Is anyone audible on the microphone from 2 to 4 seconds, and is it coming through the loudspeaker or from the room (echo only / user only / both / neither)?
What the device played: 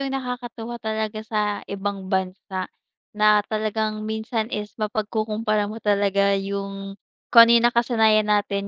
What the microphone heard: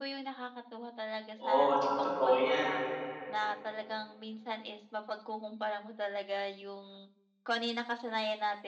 both